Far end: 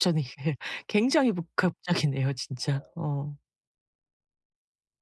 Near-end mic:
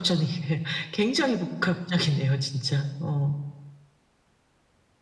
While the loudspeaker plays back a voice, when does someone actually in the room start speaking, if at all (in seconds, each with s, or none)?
none